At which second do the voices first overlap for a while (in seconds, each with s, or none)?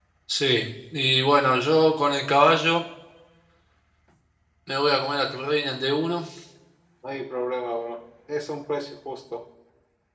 none